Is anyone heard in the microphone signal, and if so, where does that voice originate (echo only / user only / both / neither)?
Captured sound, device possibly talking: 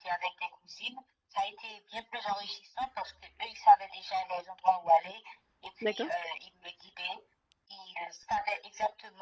both